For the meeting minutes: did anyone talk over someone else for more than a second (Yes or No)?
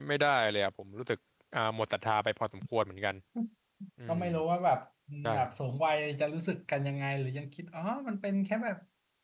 No